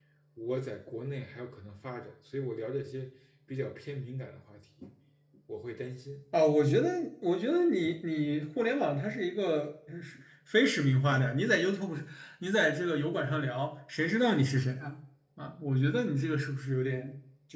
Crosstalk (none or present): none